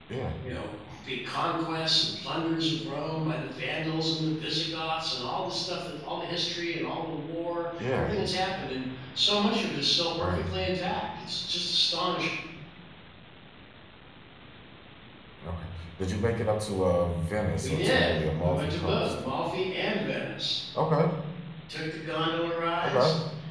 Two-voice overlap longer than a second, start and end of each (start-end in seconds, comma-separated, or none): 17.6-19.1